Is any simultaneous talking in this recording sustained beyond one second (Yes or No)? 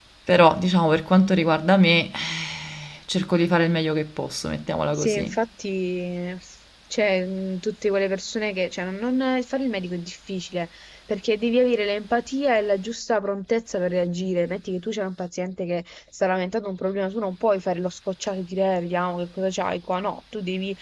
No